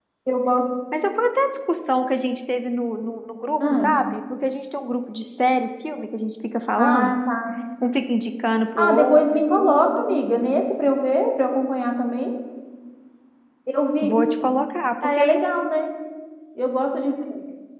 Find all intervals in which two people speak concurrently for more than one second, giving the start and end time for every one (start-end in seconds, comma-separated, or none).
8.8-10.2